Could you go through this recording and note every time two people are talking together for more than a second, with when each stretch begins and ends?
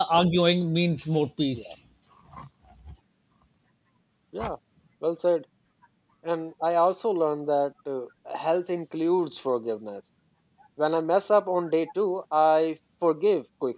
none

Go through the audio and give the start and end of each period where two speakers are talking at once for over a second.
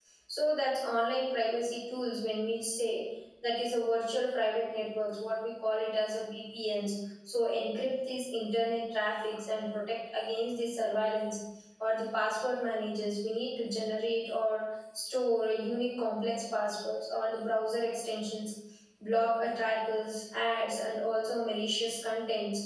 none

